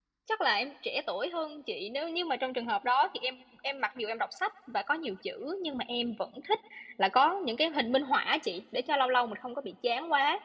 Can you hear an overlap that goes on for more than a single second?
No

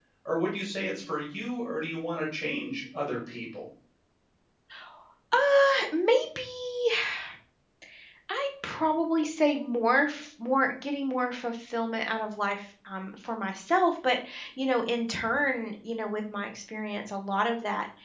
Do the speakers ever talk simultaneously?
No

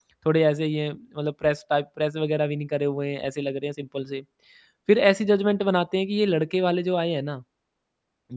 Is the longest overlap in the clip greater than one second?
No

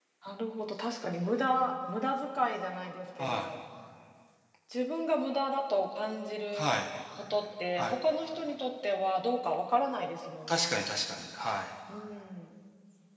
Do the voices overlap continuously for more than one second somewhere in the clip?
No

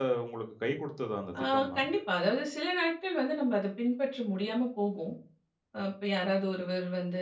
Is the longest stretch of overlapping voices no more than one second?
Yes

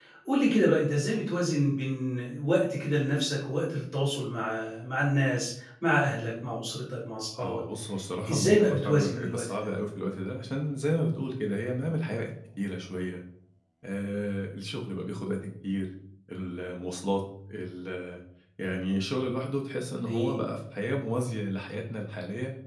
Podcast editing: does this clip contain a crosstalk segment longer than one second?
Yes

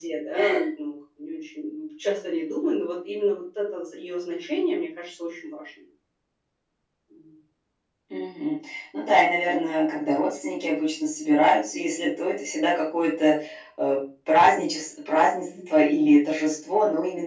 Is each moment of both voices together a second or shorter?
Yes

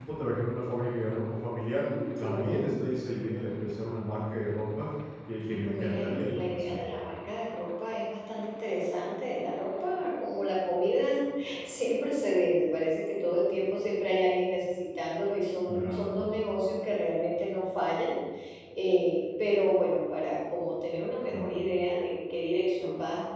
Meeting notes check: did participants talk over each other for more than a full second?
Yes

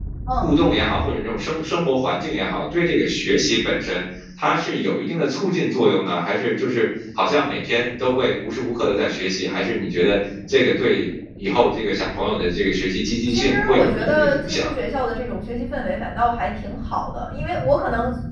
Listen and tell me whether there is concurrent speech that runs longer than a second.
Yes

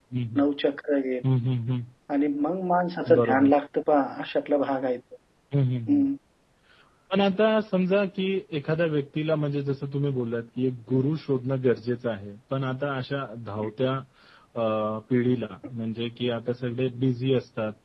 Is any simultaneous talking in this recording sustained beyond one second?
No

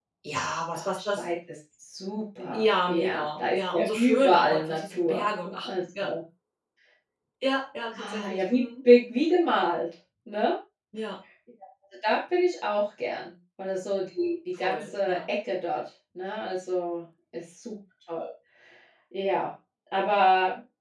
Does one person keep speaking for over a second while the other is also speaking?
Yes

